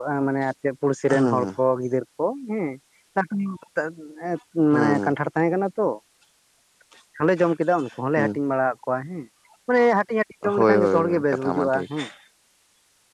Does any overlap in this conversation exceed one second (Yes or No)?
Yes